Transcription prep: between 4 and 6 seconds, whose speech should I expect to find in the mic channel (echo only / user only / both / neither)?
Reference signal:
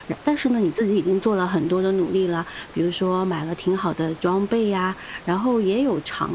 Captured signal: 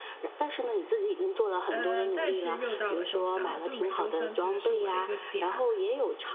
both